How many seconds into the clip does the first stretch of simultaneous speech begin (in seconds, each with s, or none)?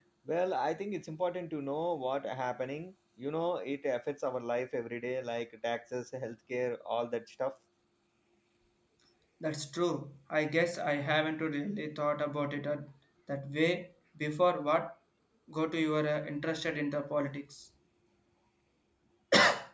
none